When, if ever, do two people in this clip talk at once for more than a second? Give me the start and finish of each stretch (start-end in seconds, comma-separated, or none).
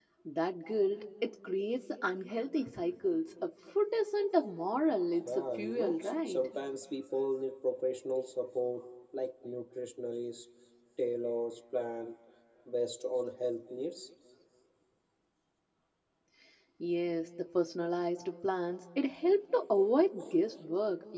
5.2-6.5